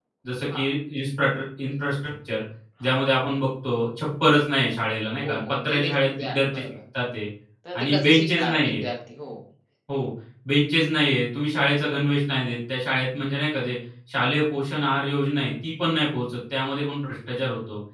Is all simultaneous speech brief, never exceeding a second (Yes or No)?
No